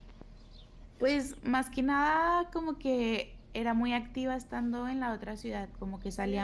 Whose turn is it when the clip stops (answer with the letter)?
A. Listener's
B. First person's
B